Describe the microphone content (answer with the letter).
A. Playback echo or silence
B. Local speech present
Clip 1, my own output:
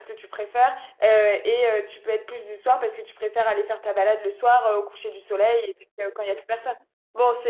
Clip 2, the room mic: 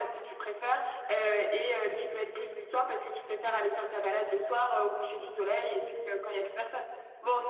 A